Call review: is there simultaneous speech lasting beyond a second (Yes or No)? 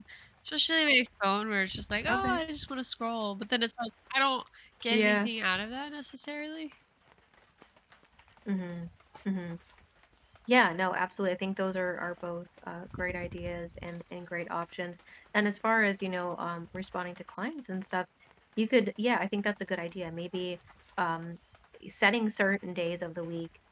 No